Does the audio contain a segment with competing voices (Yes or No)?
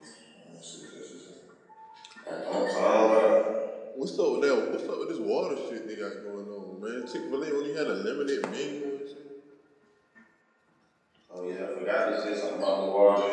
No